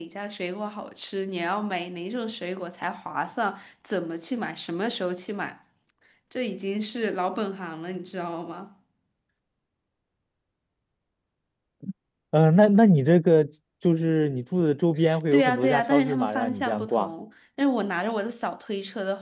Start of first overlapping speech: 15.3 s

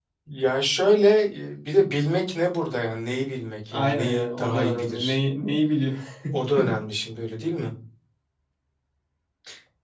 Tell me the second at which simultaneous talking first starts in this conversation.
3.7 s

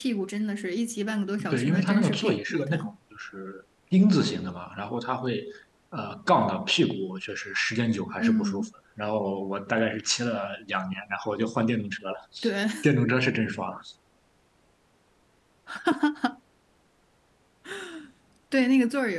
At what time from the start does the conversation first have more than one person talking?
1.5 s

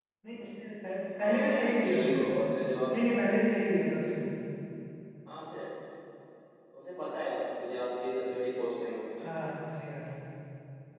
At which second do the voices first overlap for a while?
1.2 s

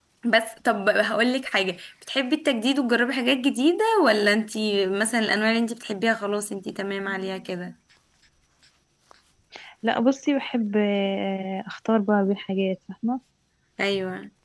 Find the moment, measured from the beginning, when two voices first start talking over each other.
none

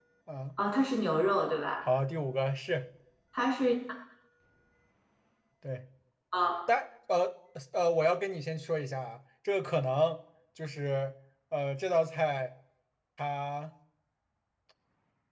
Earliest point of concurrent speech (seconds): none

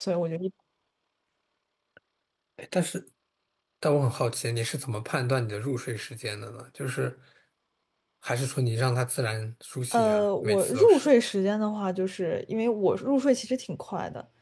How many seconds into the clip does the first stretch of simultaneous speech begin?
9.9 s

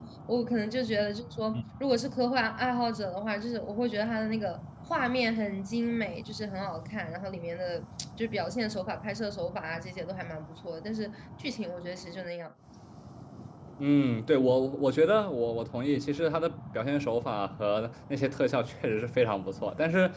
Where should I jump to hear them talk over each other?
none

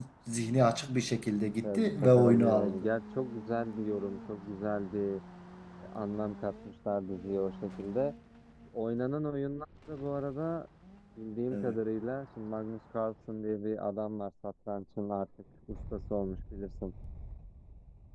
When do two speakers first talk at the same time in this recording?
1.6 s

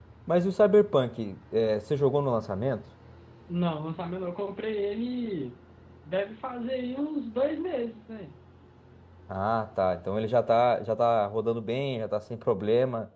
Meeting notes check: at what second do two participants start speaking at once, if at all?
none

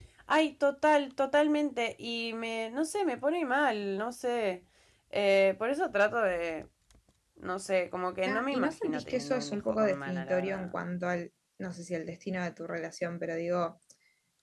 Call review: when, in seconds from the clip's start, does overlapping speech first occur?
8.2 s

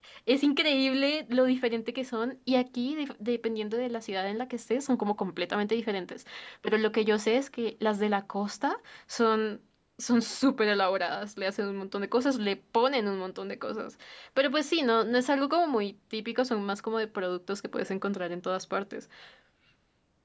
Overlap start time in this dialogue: none

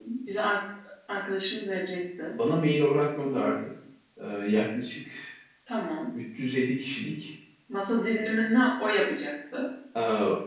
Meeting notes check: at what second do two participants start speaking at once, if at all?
none

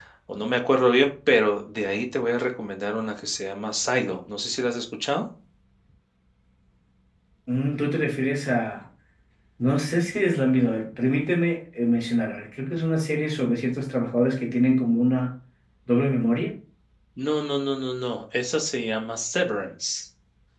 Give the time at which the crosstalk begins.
none

